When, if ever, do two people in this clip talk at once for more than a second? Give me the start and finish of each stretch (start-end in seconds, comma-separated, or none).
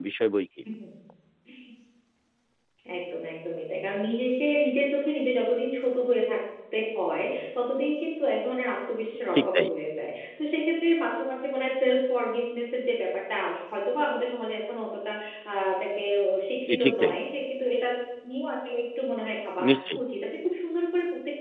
none